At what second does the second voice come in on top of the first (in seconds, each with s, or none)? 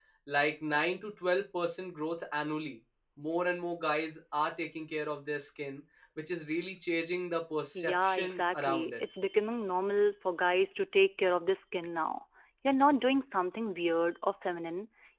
7.7 s